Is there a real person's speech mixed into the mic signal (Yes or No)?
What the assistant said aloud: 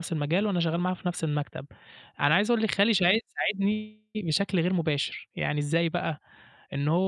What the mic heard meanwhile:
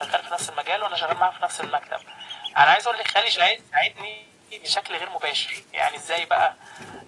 No